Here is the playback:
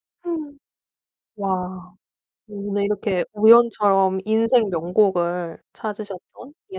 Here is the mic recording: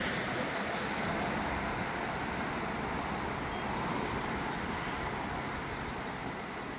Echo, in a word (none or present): none